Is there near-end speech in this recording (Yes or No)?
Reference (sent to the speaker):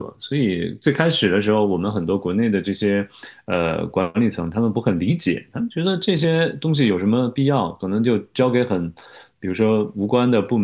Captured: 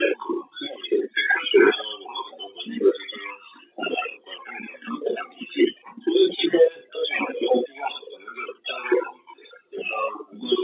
No